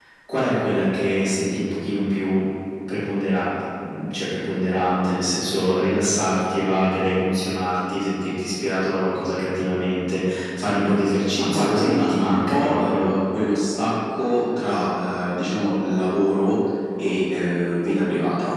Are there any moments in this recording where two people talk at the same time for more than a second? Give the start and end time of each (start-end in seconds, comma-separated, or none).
11.4-13.1